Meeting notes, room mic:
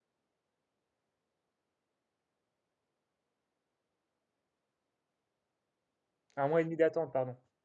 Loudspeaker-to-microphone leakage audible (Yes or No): No